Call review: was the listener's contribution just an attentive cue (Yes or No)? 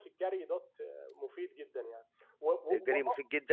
No